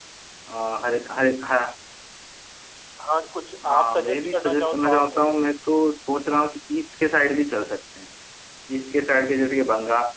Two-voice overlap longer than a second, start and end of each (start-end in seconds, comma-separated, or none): 3.6-5.4